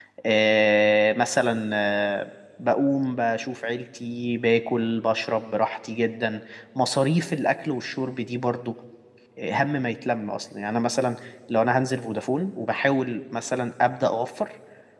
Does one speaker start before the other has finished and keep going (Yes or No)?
No